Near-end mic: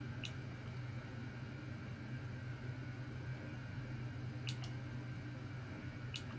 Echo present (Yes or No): No